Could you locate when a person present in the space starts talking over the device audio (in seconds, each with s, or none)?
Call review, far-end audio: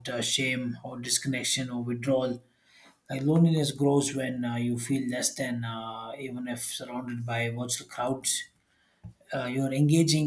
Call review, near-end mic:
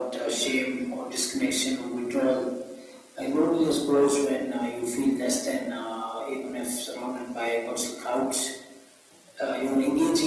none